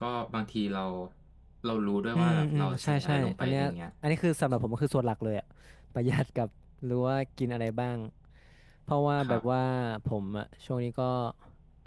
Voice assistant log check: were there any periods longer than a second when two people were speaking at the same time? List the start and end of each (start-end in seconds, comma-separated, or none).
2.2-3.6